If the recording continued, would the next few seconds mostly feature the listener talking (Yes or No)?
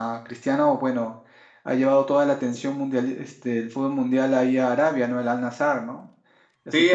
Yes